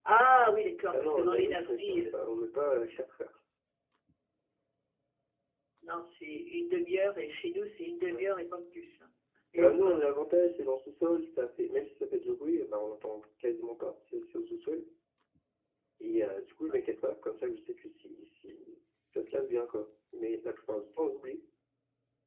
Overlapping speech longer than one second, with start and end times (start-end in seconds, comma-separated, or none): 0.9-2.2